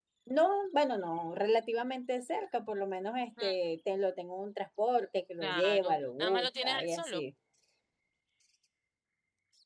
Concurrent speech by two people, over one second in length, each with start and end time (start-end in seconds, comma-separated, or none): 5.4-7.2